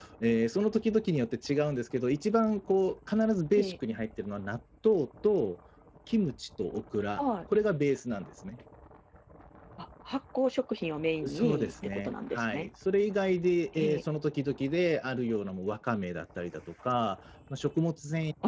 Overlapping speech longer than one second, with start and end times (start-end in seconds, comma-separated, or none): 11.2-12.7